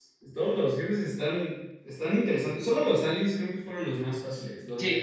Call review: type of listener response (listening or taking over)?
taking over